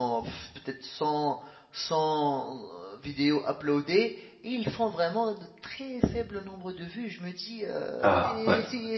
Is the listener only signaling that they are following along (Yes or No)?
Yes